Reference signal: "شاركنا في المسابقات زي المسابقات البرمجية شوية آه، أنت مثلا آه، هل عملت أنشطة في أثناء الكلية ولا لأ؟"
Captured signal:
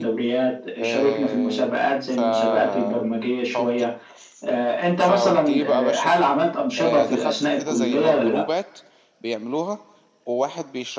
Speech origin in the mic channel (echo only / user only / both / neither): both